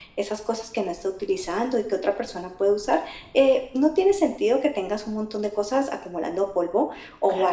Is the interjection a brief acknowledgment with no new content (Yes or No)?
Yes